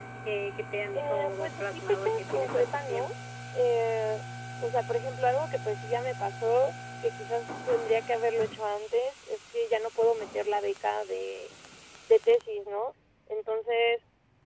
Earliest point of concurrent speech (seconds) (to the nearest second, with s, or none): 1 s